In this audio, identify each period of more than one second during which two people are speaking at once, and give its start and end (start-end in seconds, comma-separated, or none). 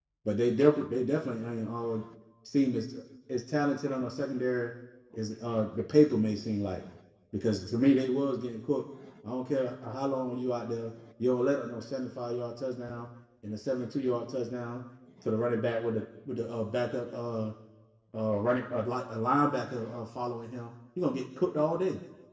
none